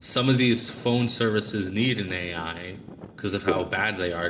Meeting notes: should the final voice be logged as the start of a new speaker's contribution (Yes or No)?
No